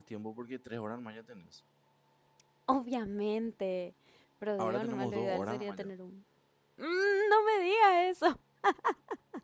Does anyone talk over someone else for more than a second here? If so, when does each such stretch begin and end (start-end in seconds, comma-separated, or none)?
4.6-5.9